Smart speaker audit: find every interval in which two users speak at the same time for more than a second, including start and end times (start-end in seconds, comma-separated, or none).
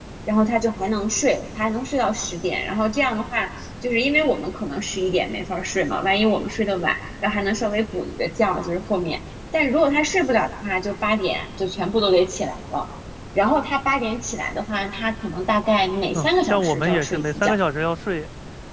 16.1-17.5